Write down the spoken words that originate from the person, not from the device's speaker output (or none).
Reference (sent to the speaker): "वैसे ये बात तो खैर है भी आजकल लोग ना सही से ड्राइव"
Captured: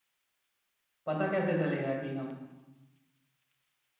पता कैसे चलेगा कि हम